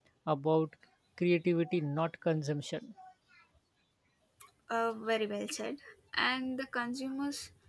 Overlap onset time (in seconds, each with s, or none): none